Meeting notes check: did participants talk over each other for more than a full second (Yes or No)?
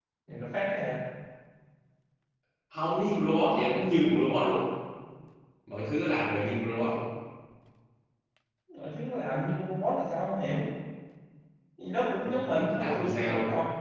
Yes